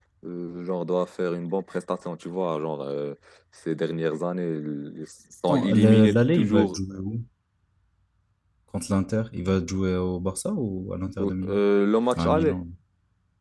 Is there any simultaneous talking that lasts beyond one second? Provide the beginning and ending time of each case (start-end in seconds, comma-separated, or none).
5.5-6.8